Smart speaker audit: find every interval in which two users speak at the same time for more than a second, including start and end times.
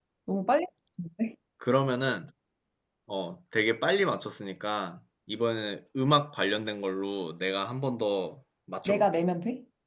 none

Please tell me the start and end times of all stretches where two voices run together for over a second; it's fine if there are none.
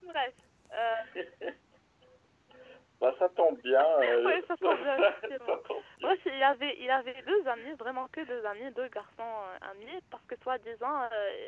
4.2-5.6

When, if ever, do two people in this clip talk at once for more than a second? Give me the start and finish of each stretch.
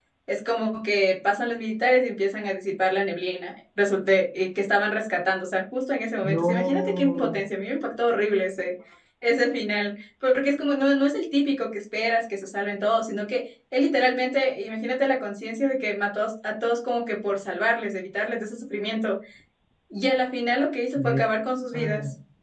6.2-7.4

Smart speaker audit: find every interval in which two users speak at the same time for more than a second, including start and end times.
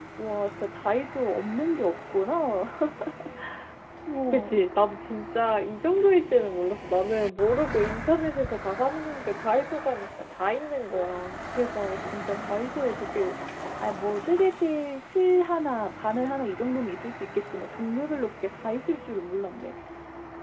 none

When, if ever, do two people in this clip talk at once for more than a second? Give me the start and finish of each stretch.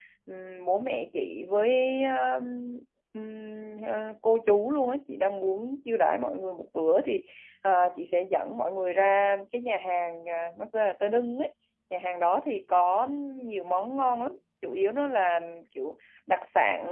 none

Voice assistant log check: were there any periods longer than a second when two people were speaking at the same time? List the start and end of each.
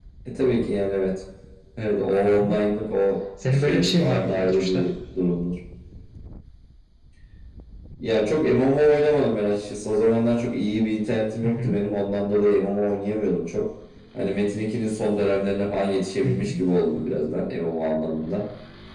3.5-4.9

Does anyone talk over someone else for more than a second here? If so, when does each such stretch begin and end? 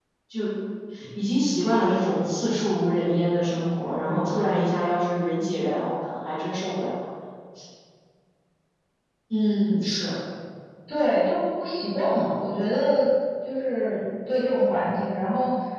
none

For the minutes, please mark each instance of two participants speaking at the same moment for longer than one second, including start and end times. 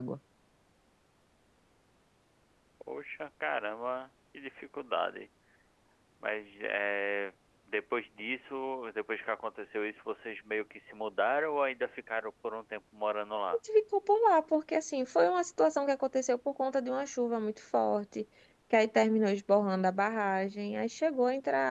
none

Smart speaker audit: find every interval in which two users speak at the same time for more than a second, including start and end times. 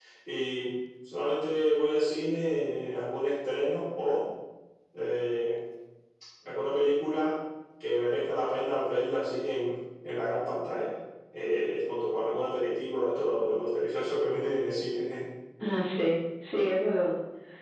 none

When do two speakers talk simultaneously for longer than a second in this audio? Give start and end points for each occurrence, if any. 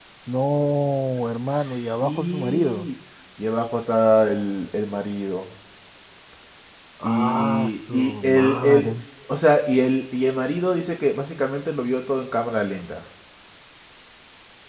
1.5-2.9, 7.0-8.9

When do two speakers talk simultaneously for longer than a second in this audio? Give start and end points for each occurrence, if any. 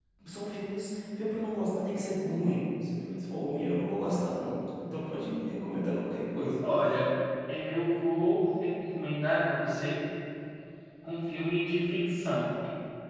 none

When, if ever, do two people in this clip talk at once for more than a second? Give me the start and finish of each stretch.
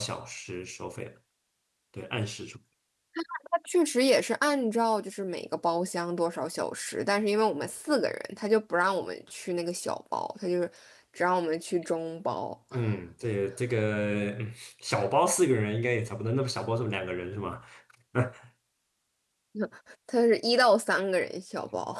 none

